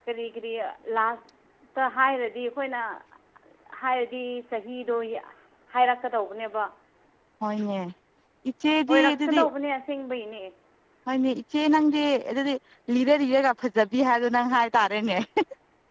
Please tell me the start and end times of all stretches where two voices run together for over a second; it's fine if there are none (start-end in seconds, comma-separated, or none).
none